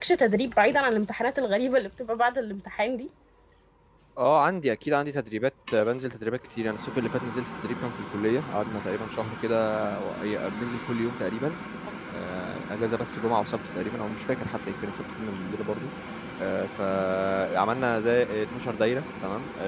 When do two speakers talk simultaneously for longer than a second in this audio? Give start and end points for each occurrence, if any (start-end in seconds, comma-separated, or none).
none